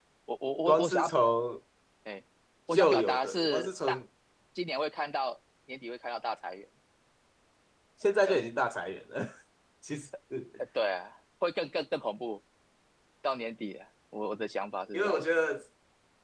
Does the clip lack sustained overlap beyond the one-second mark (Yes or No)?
No